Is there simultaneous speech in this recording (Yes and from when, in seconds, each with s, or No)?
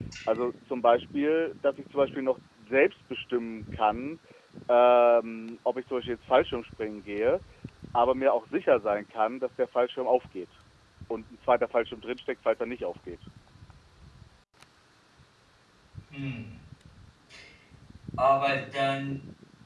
No